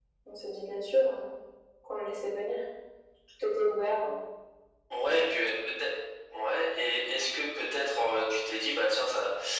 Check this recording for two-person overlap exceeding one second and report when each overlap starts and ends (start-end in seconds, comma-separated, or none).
none